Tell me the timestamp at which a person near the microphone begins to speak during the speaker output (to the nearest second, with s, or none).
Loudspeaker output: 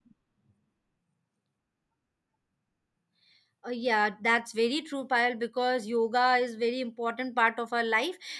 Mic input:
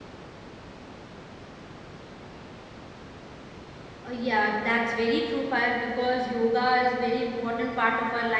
none